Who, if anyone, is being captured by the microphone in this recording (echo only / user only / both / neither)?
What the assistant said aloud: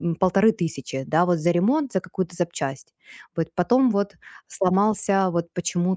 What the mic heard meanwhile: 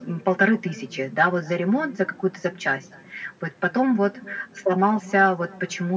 echo only